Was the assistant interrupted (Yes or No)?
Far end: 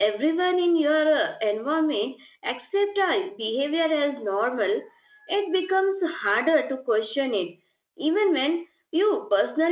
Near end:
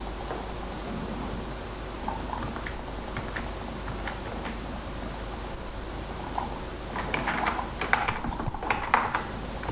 No